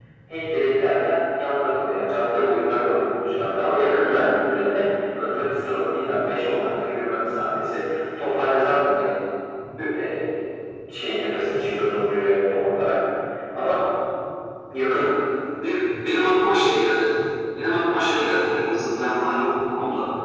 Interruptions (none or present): none